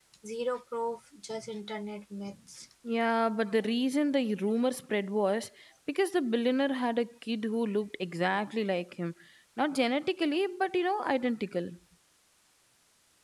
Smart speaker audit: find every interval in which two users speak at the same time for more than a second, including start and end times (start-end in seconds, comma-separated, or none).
none